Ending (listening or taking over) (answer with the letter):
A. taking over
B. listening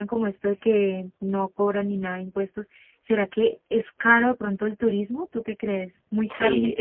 A